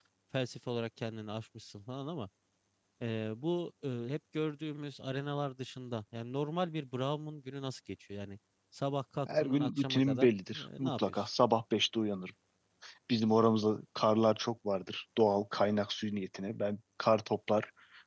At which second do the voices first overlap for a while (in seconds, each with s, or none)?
9.3 s